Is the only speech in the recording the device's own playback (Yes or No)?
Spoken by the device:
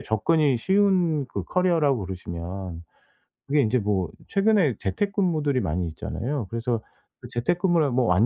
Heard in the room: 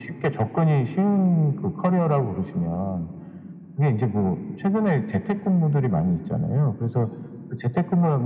Yes